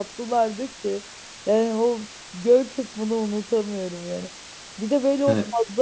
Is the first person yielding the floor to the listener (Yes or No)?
No